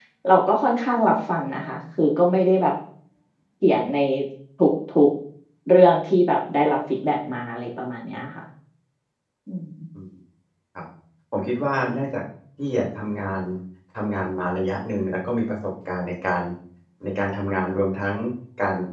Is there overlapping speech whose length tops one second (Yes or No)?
No